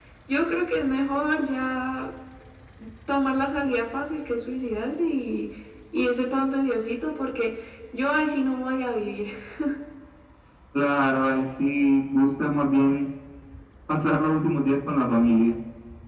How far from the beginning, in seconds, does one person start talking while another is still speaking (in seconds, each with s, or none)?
none